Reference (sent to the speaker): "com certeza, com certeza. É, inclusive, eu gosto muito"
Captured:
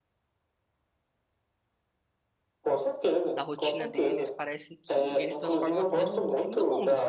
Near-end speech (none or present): present